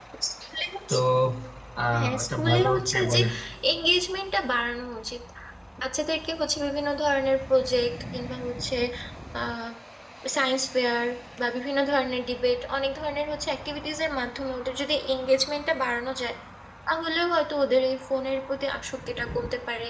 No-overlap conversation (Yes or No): No